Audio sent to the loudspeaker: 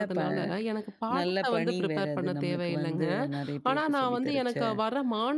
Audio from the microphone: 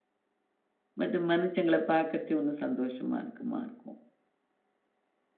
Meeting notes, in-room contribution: present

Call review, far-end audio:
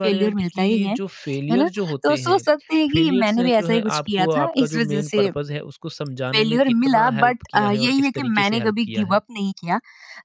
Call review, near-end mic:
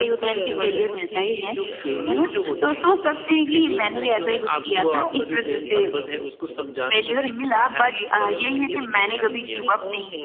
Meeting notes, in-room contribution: present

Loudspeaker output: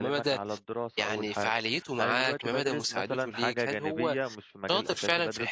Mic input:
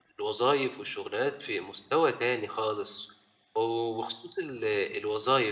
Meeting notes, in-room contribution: present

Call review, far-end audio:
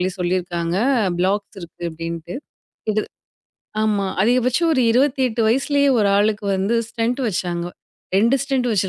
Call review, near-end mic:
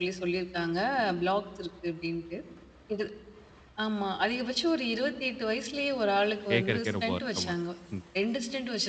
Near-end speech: present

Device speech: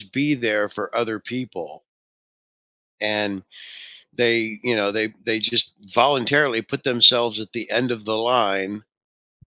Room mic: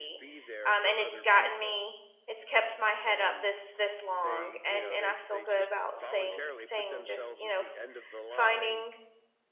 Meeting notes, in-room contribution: present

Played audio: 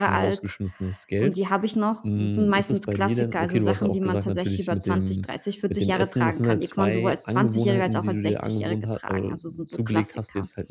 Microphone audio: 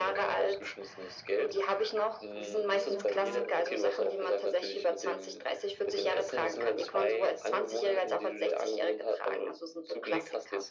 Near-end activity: present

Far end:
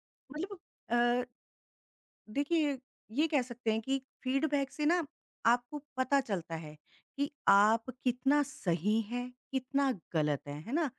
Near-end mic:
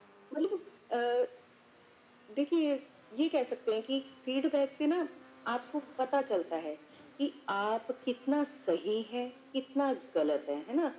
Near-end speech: none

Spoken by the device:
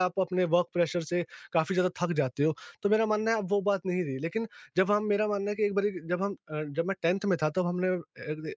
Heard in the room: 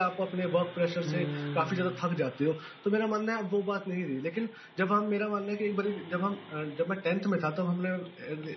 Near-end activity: present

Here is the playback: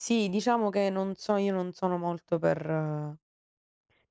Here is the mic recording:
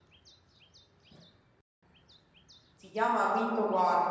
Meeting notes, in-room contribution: present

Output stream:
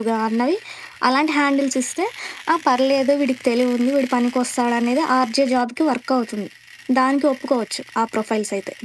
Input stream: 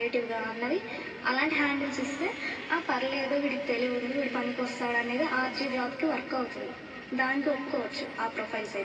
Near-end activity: none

